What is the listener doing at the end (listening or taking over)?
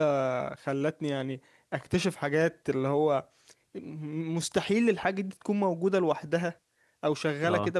listening